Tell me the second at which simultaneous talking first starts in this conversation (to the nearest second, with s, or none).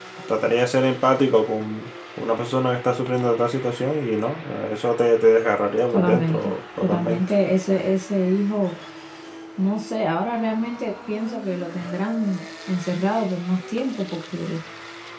6 s